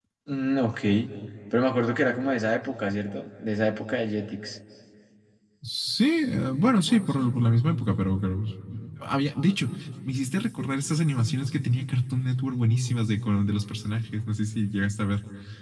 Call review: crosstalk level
none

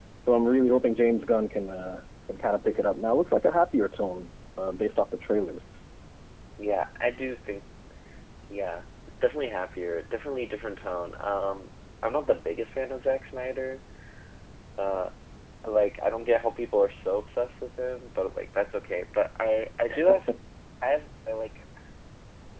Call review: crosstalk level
none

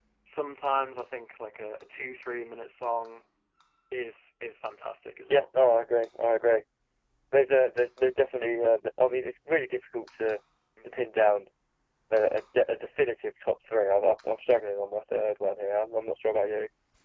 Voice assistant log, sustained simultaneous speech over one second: none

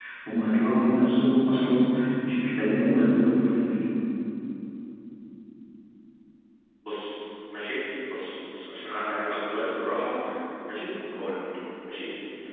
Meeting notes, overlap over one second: none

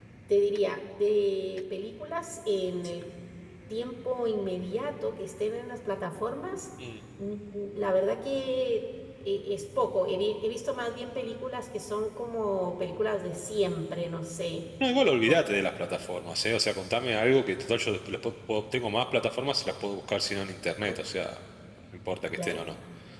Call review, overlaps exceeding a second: none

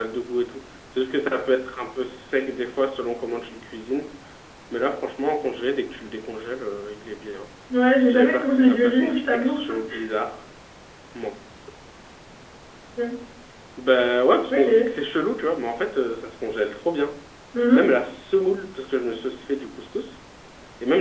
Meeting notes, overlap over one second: present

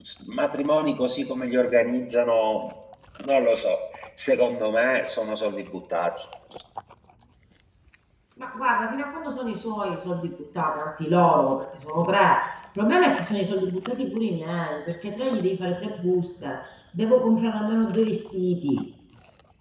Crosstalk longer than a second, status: none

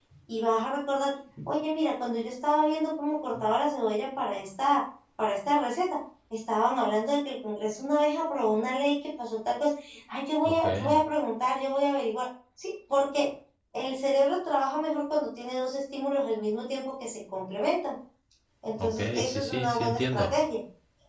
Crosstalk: present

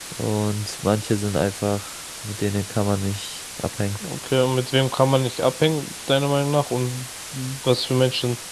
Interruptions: none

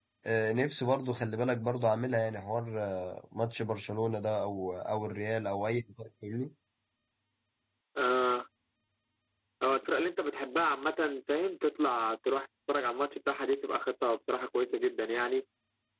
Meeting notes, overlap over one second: none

